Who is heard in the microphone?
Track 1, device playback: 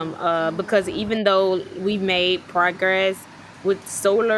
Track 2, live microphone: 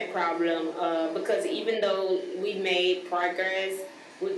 echo only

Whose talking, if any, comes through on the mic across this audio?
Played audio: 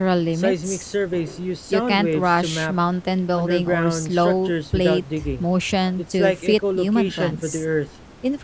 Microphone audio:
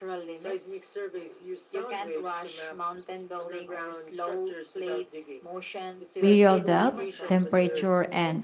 both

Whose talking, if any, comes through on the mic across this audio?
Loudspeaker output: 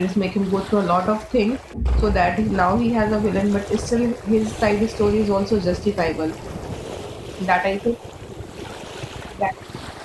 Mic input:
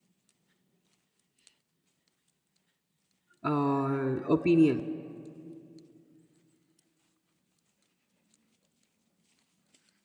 user only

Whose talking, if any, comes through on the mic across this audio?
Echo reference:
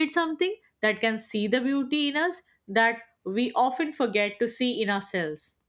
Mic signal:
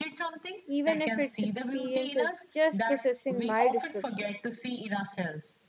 both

